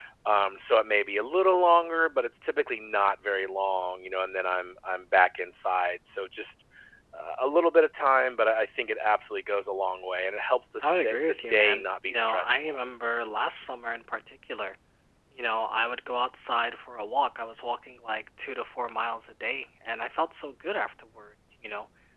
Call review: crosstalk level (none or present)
present